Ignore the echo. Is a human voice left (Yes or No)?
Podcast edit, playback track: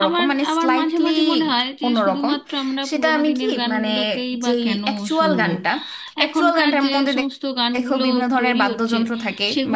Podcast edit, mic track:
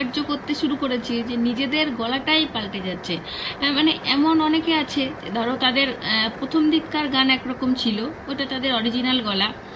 Yes